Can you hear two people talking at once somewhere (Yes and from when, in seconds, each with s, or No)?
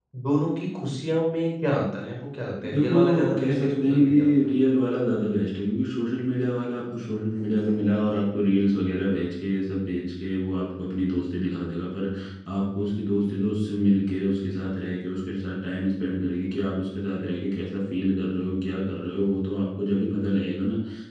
Yes, from 2.6 s